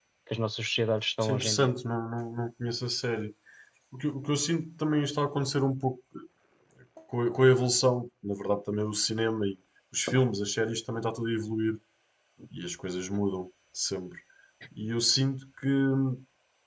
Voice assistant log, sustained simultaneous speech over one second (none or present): none